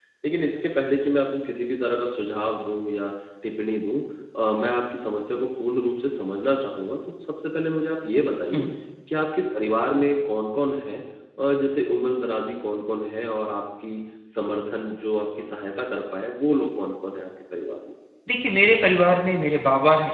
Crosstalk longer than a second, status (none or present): none